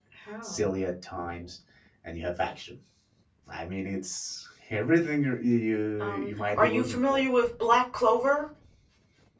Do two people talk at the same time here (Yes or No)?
Yes